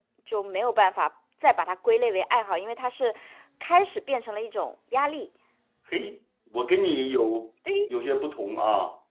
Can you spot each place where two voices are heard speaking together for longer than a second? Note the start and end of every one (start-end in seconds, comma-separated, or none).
none